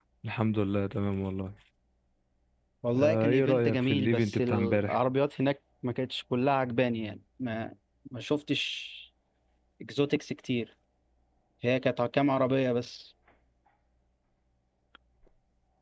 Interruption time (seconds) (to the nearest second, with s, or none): 3 s